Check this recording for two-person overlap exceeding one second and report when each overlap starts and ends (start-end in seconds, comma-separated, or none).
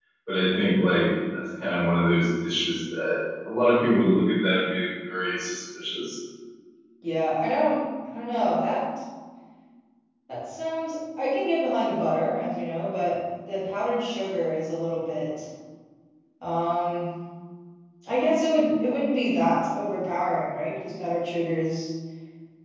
none